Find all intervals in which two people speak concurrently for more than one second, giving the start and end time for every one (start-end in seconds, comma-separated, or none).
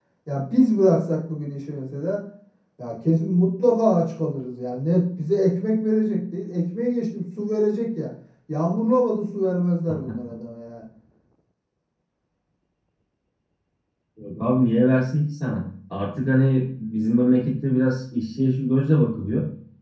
none